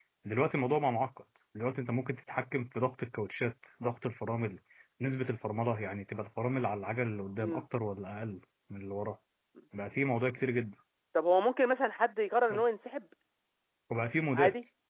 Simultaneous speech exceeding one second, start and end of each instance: none

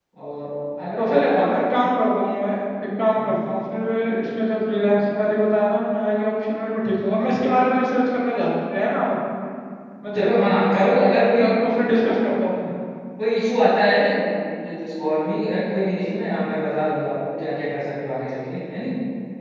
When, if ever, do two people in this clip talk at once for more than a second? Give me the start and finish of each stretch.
10.2-11.5

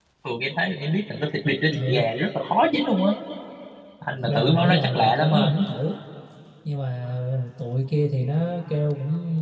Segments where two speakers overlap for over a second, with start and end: 4.2-5.5

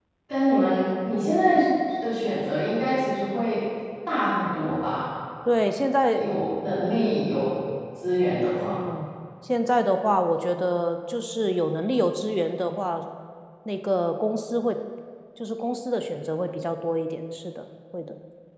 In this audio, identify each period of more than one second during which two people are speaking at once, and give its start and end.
none

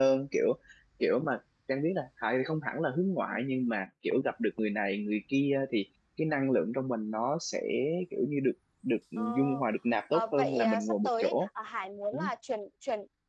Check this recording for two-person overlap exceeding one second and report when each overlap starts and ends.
10.1-11.5

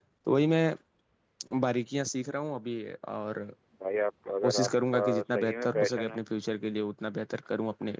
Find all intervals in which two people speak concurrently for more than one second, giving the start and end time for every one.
4.4-6.2

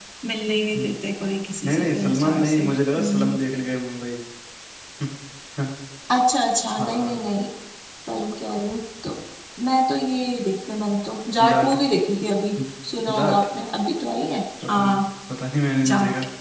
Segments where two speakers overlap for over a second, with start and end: 1.6-3.4

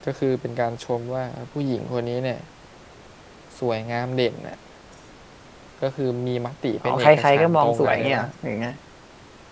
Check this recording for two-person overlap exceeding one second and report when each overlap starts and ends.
6.8-8.2

